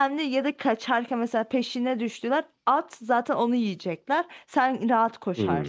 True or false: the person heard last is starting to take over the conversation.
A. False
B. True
B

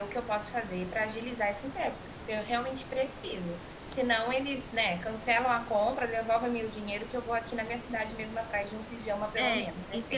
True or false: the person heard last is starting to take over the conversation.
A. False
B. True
B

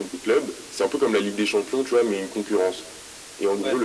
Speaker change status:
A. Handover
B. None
B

